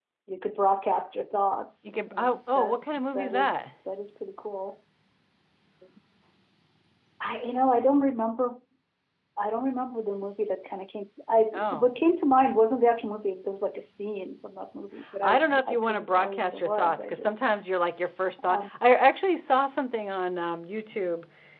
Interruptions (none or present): present